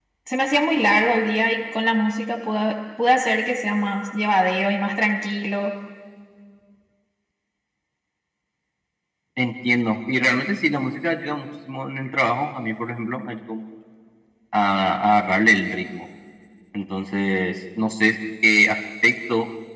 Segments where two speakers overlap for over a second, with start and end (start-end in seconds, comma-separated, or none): none